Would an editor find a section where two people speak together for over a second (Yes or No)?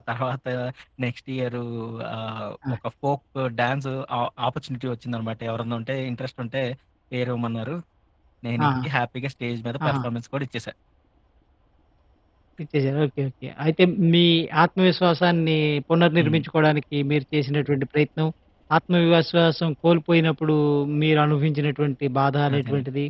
No